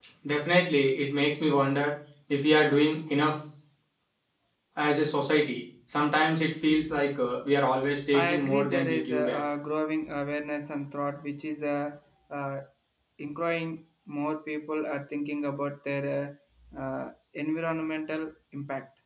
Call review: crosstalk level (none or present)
present